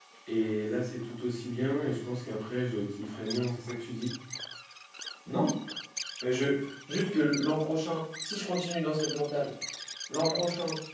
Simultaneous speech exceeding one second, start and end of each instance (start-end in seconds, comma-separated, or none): none